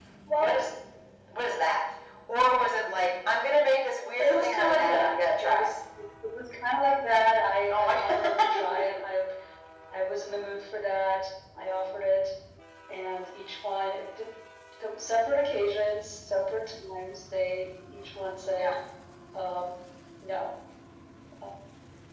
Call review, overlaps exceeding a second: present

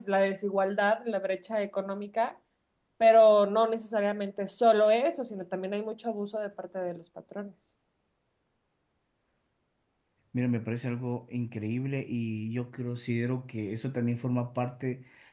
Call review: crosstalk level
none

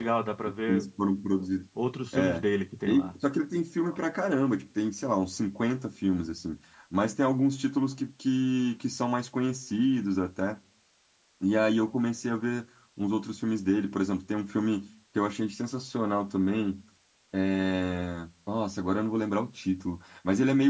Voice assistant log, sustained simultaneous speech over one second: none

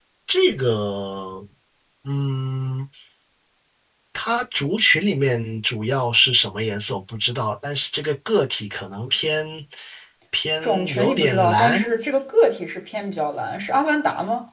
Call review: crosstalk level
present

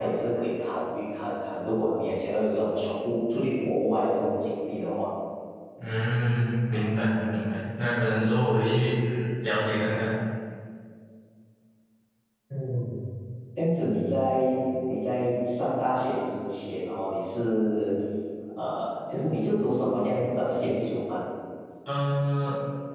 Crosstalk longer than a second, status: none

